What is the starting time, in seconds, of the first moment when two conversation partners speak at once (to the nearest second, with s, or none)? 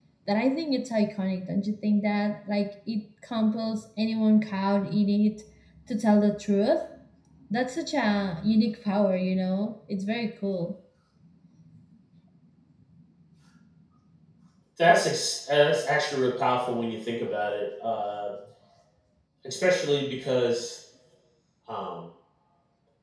none